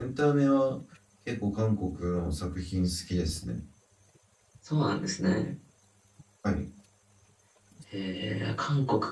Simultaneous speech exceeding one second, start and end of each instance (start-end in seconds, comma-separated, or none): none